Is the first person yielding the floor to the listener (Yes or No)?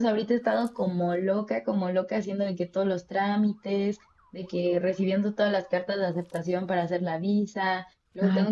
No